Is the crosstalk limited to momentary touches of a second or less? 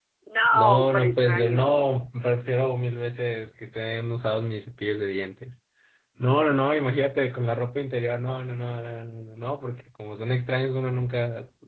No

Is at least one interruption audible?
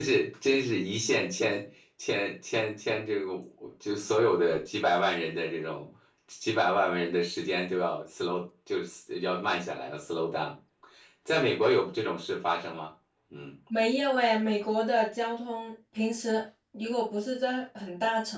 No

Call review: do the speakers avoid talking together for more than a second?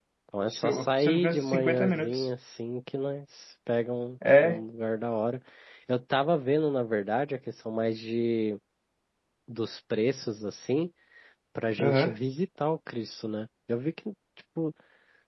No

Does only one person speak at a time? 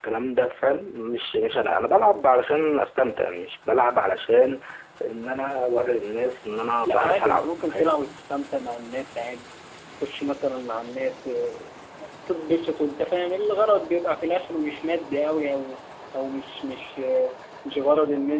No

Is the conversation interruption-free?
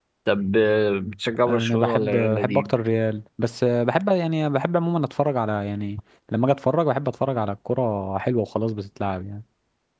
No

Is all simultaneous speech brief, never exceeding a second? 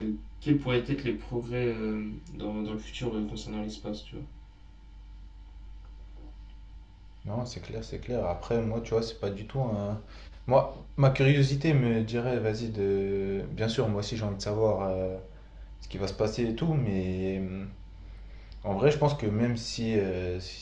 Yes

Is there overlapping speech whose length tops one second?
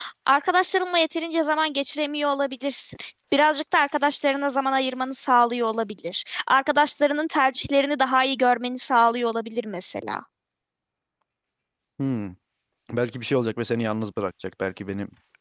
No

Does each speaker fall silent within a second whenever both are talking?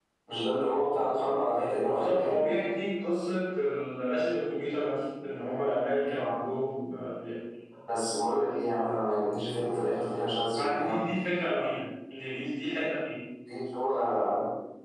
Yes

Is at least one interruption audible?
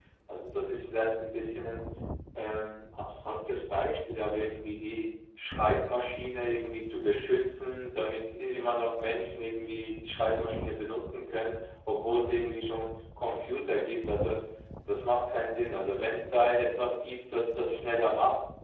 No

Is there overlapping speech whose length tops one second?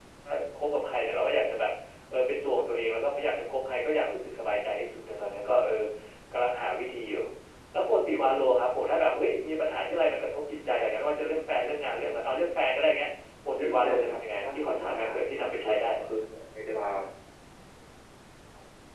Yes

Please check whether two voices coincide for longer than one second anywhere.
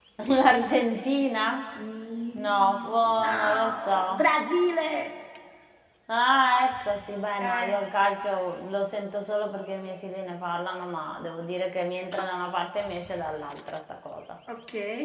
Yes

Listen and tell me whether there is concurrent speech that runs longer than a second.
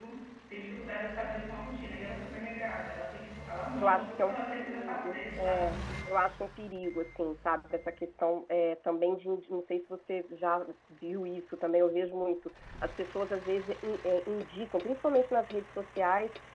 Yes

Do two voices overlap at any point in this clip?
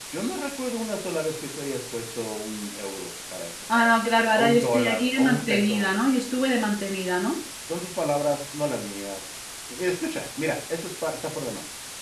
Yes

